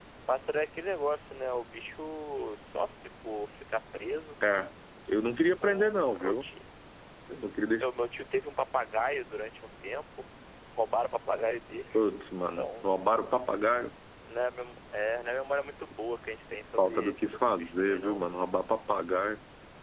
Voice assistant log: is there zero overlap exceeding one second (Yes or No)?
No